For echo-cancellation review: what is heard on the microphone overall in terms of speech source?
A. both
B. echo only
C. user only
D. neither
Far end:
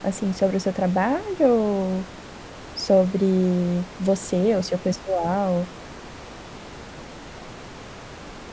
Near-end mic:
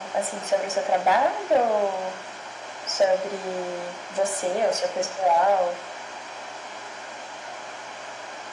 B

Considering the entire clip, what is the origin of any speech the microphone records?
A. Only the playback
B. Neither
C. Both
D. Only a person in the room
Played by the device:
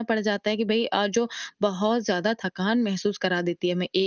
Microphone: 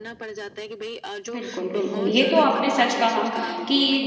C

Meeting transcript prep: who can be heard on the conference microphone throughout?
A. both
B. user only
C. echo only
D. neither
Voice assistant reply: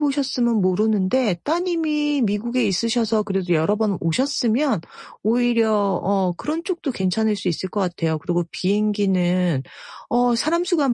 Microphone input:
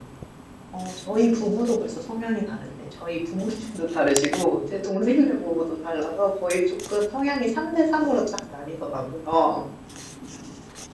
B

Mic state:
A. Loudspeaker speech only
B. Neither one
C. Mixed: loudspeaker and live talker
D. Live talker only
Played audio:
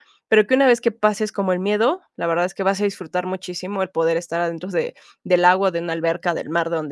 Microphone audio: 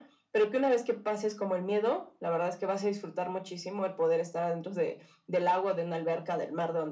A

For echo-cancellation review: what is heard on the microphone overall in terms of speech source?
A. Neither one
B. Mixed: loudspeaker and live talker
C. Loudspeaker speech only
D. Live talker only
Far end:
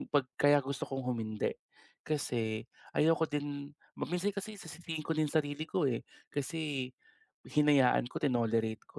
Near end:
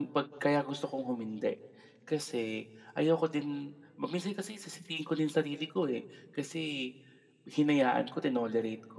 C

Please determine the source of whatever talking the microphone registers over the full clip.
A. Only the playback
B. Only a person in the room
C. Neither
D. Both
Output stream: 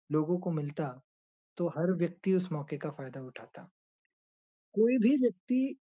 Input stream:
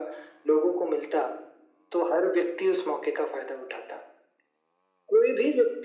A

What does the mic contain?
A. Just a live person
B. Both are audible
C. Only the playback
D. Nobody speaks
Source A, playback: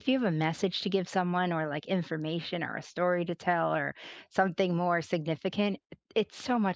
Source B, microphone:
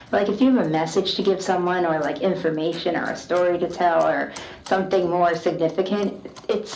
C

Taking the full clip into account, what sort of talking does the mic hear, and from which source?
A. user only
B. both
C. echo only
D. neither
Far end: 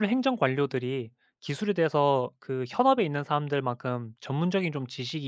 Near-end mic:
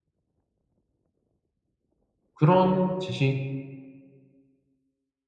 A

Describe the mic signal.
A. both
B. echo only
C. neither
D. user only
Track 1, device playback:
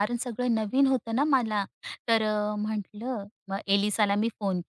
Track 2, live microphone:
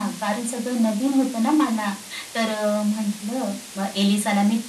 B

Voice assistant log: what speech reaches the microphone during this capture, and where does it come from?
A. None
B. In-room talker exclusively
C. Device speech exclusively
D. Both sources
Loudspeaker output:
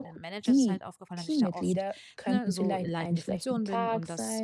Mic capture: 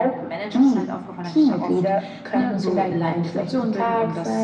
C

